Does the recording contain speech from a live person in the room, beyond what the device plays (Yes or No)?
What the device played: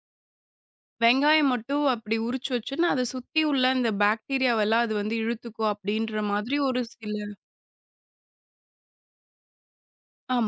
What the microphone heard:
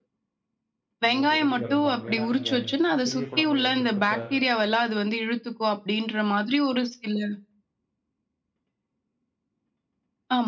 Yes